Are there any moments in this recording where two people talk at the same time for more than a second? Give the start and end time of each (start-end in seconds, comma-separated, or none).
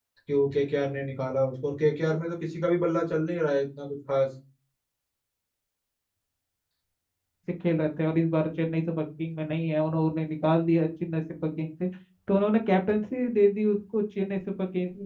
none